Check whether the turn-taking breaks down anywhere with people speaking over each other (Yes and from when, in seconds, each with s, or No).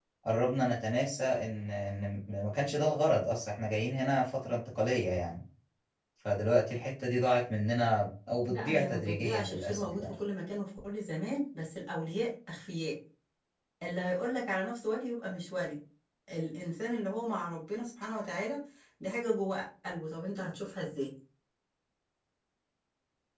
Yes, from 8.5 s